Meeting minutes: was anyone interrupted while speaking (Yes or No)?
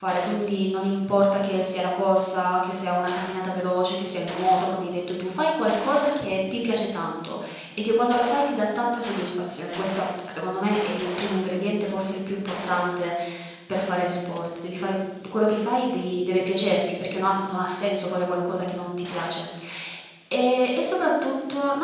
No